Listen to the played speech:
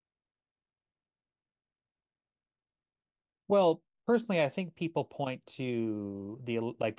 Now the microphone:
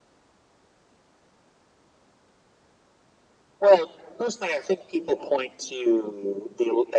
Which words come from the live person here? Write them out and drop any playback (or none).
none